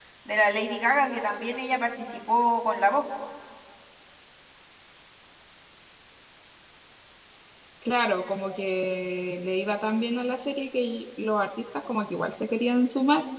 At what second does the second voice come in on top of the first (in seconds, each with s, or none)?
none